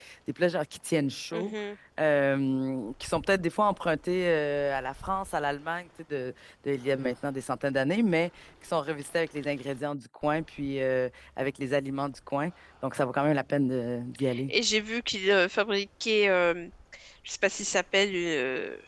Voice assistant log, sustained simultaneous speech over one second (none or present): none